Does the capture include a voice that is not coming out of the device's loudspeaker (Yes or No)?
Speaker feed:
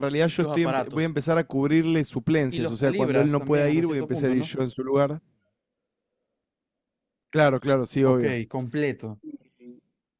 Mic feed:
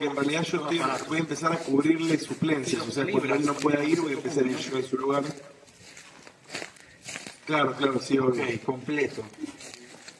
No